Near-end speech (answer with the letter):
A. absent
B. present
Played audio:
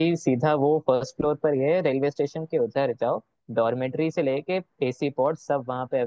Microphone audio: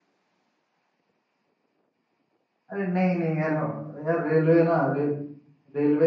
B